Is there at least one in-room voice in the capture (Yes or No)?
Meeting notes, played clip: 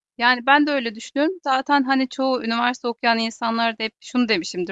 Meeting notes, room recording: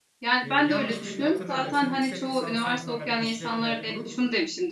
Yes